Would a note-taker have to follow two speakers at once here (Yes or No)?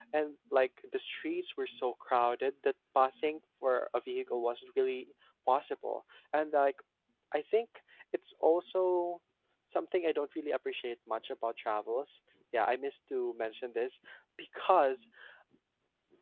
No